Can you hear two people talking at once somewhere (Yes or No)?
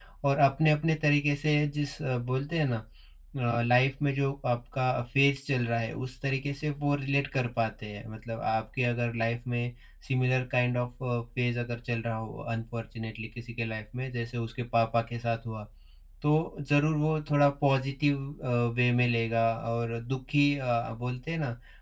No